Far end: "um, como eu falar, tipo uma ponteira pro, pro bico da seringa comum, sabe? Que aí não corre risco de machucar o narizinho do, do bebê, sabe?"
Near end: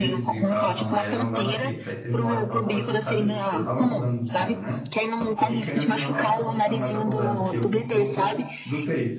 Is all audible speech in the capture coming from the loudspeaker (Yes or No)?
No